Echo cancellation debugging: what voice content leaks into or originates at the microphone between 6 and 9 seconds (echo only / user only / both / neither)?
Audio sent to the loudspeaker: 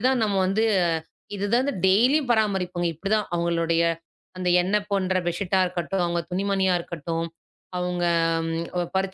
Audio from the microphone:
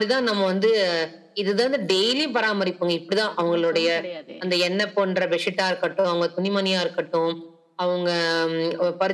echo only